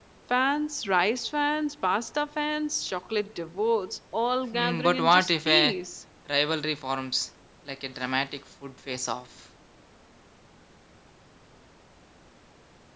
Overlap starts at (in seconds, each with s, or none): 4.5 s